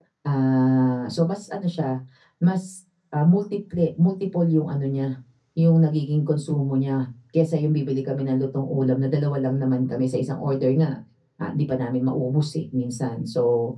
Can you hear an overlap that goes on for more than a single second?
No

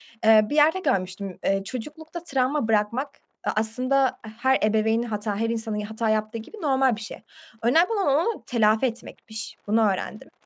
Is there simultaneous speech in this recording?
No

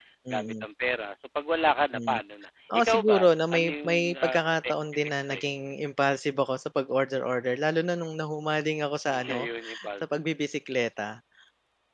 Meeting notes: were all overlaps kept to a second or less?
No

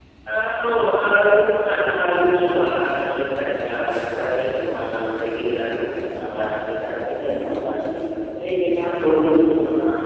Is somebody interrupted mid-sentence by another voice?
No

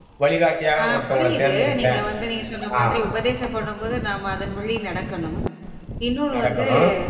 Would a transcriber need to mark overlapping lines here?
Yes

